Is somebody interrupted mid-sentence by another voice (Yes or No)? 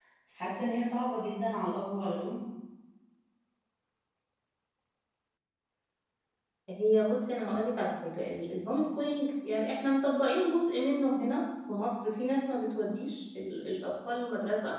No